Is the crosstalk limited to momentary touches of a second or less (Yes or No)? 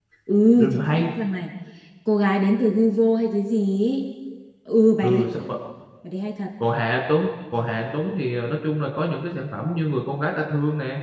Yes